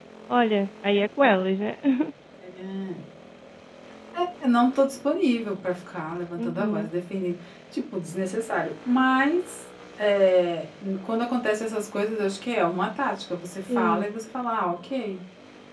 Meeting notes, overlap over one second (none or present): none